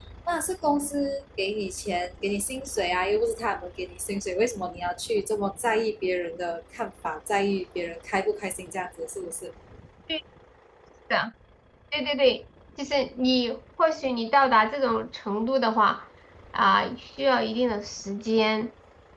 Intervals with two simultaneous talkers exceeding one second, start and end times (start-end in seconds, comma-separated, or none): none